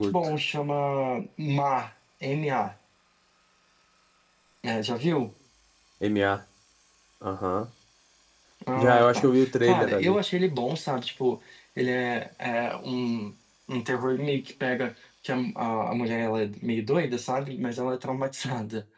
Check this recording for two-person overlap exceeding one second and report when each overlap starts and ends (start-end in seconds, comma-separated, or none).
8.8-10.2